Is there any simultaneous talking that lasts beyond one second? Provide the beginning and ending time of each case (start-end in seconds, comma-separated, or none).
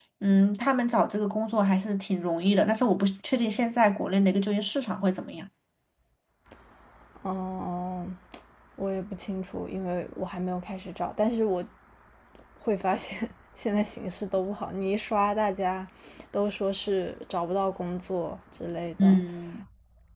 none